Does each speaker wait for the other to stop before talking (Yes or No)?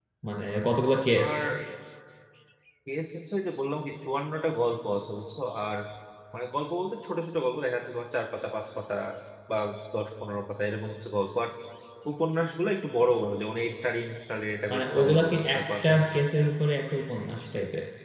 No